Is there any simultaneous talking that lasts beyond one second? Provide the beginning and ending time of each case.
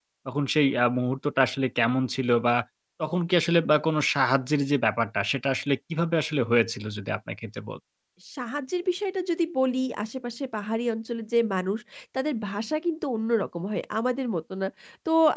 none

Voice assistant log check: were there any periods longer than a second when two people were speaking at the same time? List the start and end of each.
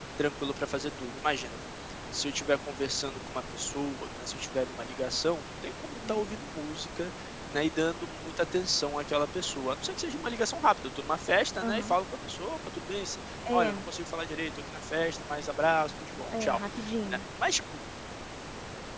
none

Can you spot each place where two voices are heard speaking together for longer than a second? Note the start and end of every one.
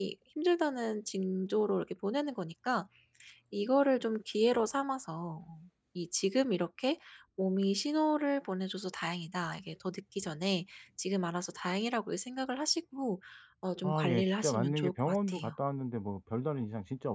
13.8-15.5

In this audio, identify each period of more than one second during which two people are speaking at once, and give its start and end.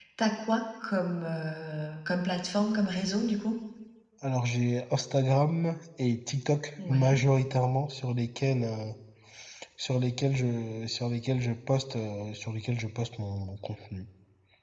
none

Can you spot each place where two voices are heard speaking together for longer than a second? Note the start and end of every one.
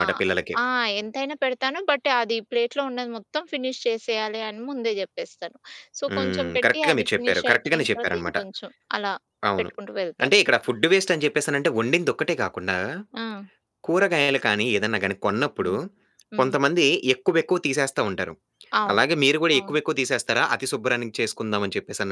6.2-8.4

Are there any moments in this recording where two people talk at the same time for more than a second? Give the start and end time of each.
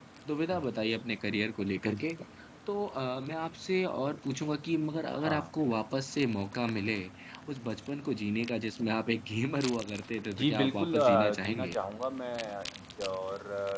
10.3-11.7

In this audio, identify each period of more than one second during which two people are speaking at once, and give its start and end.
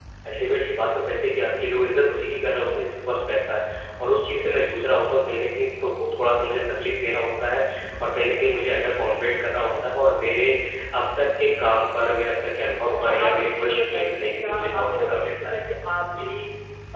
12.9-15.6

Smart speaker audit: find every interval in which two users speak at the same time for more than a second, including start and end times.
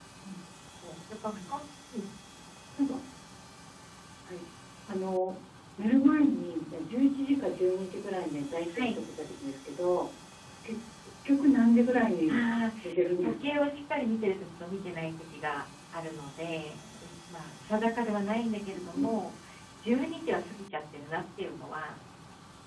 none

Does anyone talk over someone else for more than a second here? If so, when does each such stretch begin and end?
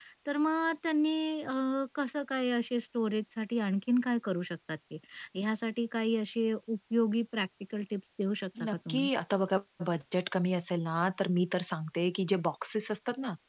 none

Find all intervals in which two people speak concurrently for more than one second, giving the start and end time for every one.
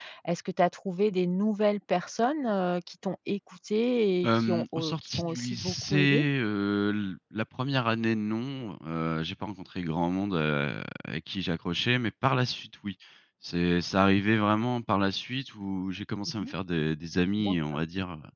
4.2-6.2

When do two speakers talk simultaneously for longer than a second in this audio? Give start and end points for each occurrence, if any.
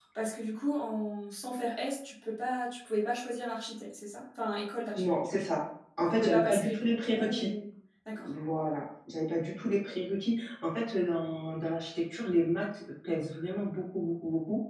6.2-7.5

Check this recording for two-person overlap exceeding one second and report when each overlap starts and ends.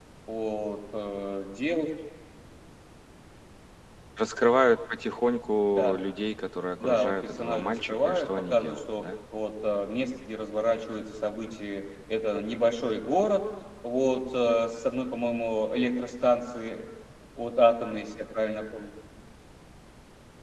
6.8-9.1

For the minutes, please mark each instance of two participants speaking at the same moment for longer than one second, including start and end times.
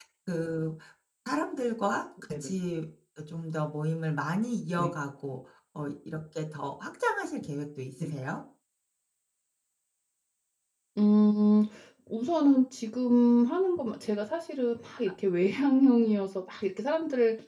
none

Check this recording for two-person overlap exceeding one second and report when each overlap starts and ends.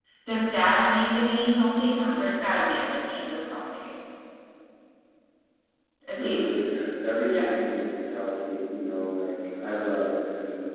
none

